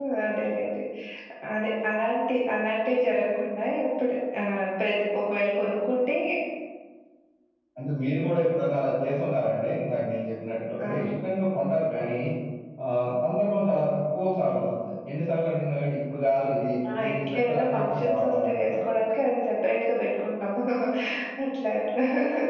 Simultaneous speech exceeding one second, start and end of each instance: 16.9-19.0

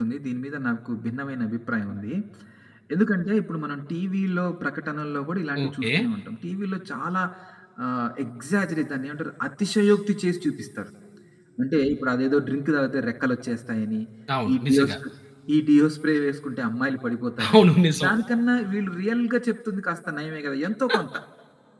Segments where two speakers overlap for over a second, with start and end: none

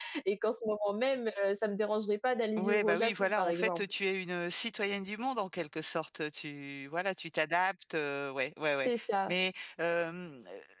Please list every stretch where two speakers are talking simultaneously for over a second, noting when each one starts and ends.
2.6-3.8

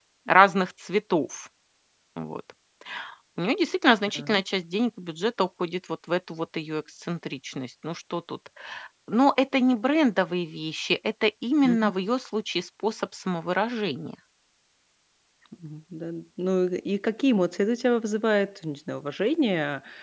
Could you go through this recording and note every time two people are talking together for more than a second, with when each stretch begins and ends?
none

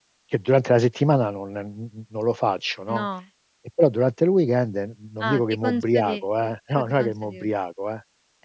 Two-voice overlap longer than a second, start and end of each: 5.3-7.4

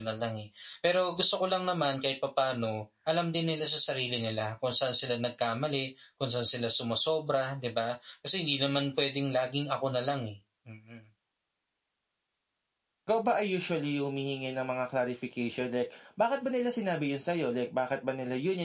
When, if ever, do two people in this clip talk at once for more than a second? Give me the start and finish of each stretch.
none

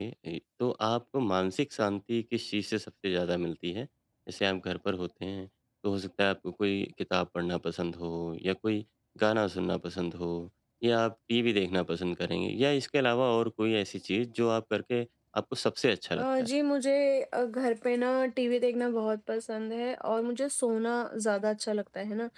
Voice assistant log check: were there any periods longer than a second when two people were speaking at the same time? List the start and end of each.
none

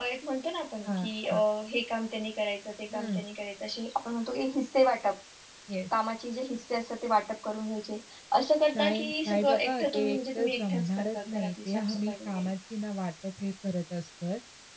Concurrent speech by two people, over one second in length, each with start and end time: 8.8-12.5

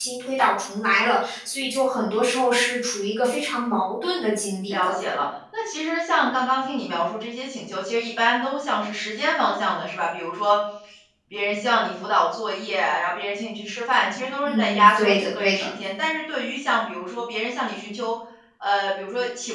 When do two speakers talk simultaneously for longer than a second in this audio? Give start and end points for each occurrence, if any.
14.4-15.7

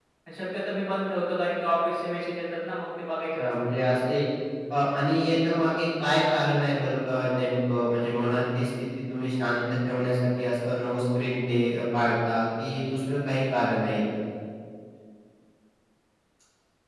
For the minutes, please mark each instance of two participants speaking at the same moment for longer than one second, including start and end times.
none

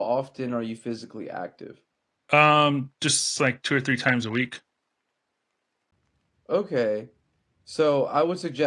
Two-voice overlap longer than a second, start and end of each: none

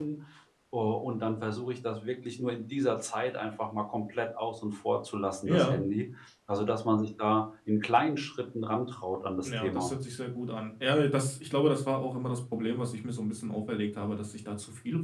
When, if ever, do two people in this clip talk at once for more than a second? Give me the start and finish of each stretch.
none

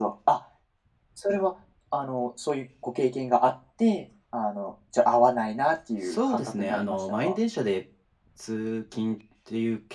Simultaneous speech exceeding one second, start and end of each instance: 6.0-7.4

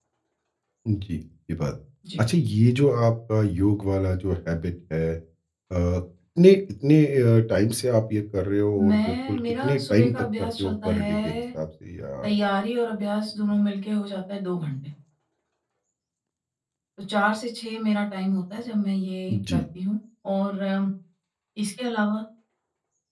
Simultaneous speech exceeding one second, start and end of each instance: 8.9-11.4

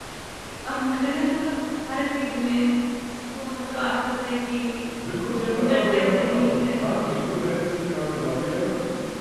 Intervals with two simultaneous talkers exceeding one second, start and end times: 5.5-7.2

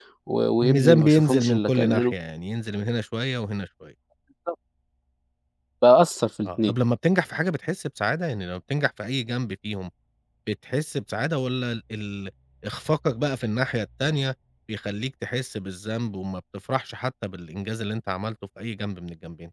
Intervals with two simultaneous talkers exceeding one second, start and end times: 0.6-2.1

